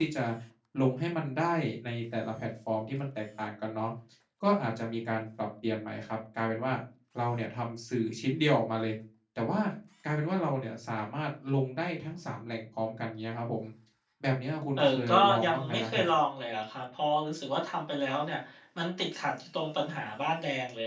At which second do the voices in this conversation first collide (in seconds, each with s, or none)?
14.8 s